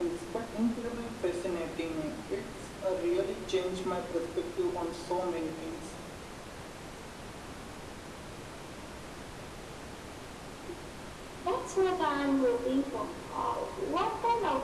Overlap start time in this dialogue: none

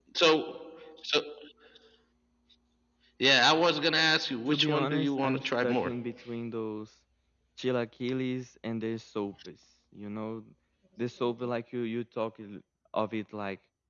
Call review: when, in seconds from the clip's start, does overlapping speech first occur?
4.5 s

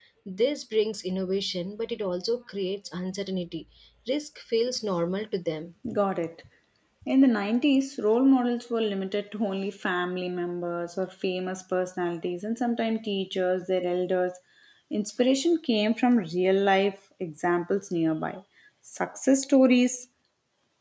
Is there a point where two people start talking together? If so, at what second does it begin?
none

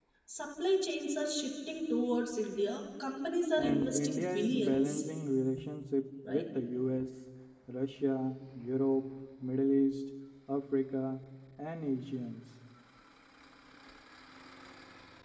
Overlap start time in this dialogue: 3.6 s

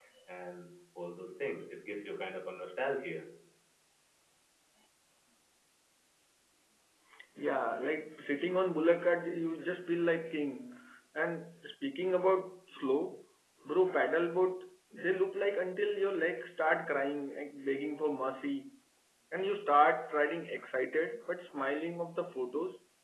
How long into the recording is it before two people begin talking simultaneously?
none

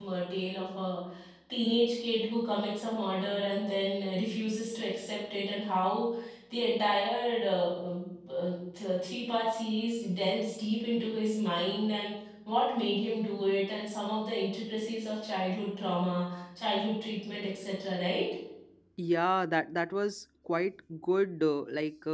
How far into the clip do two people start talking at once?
none

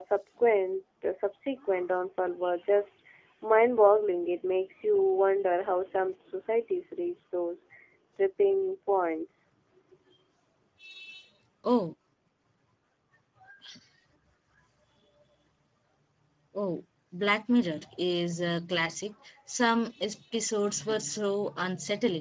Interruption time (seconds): none

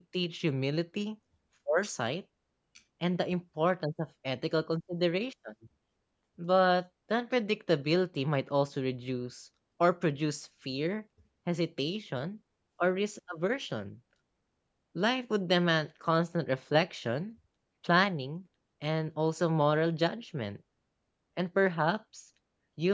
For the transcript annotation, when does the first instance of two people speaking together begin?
none

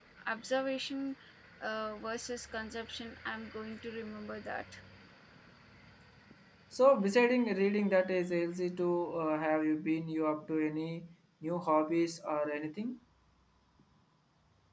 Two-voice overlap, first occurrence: none

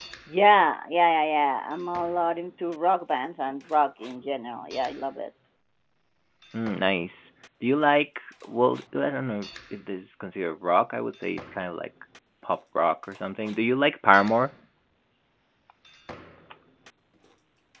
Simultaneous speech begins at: none

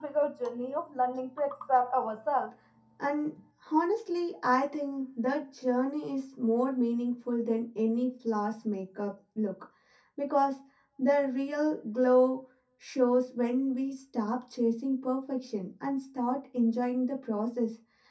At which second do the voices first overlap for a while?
none

